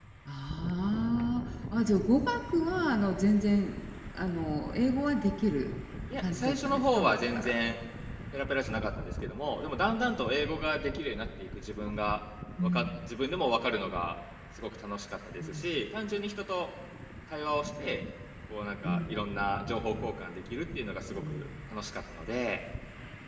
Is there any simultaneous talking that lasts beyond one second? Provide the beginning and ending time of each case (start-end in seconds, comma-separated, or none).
6.2-7.6